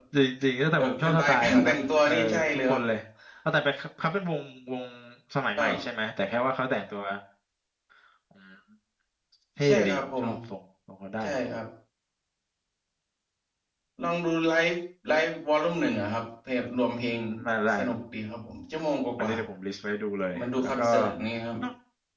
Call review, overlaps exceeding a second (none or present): present